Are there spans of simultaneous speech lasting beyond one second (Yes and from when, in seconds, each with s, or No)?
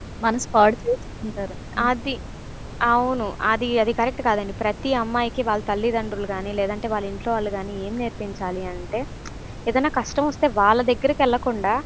No